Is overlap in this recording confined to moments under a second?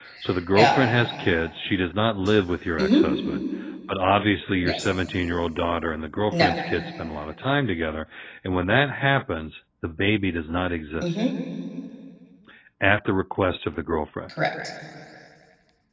Yes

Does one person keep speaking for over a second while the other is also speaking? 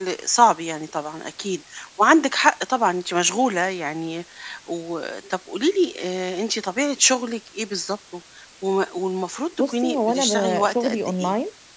Yes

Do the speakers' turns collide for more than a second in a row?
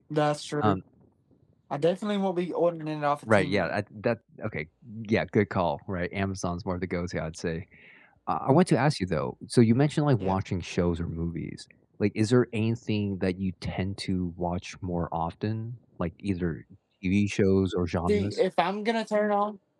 No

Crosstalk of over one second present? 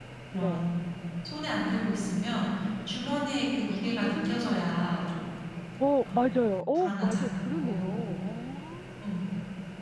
Yes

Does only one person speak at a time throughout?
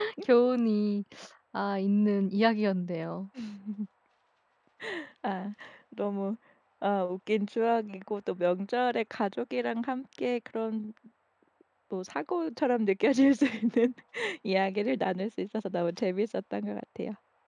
Yes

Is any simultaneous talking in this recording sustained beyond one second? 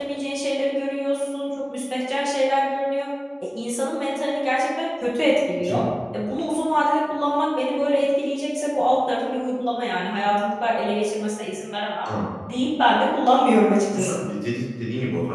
No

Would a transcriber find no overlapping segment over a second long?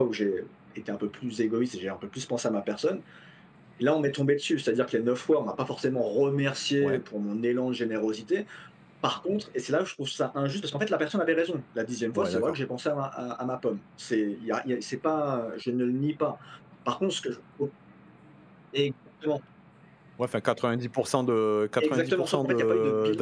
No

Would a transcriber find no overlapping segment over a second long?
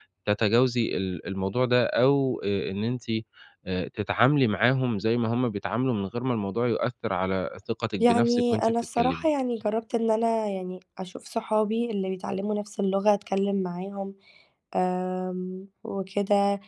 No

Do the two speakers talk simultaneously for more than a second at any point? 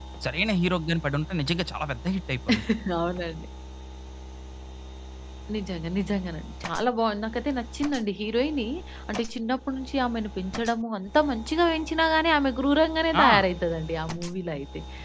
No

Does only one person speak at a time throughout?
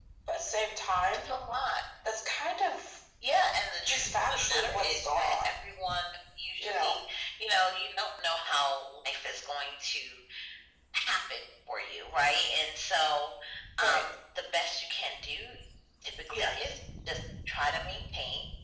No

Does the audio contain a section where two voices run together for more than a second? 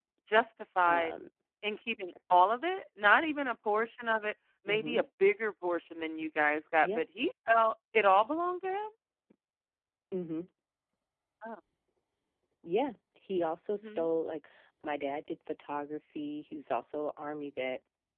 No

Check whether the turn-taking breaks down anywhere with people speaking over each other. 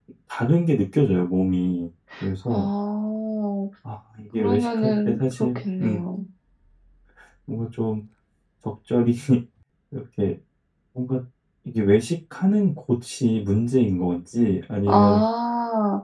Yes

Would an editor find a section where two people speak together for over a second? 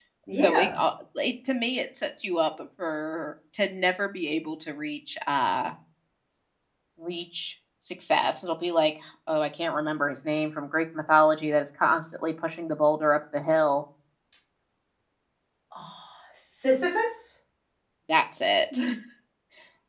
No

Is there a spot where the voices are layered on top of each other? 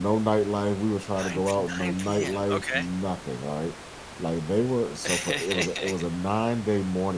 Yes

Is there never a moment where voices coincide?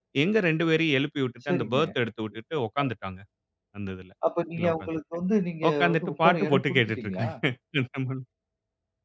No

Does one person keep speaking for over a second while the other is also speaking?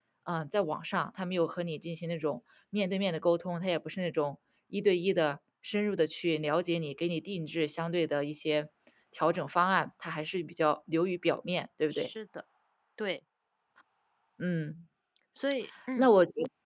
No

